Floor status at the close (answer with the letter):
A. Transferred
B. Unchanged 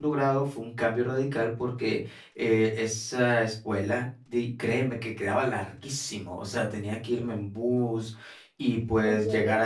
B